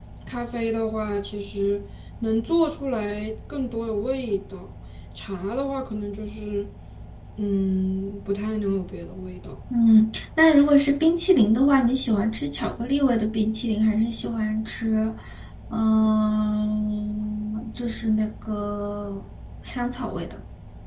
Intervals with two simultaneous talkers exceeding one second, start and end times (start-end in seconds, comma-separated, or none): none